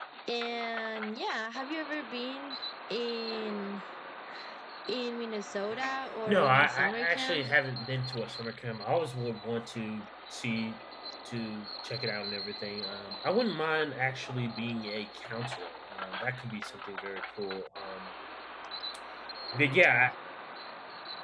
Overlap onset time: 6.3 s

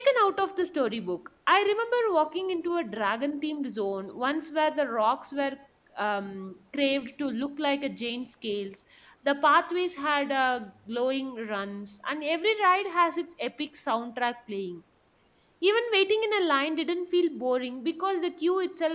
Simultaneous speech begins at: none

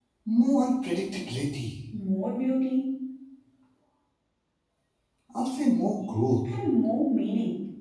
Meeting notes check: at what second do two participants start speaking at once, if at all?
none

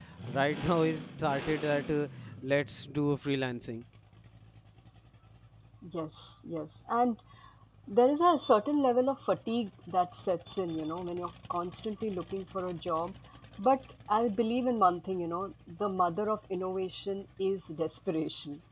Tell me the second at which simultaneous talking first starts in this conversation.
none

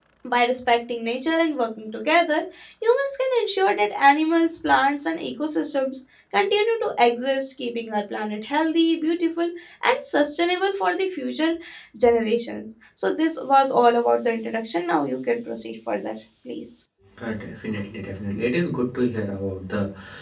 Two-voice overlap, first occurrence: none

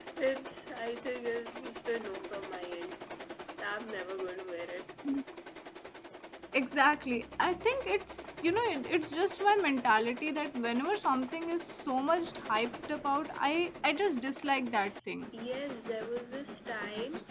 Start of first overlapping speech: none

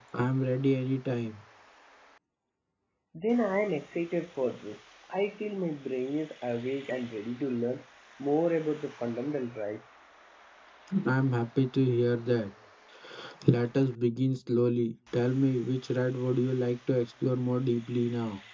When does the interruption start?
none

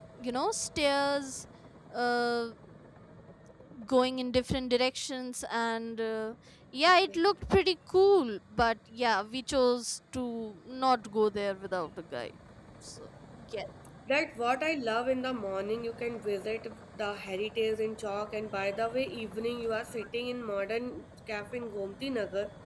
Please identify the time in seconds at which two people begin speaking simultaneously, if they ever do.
none

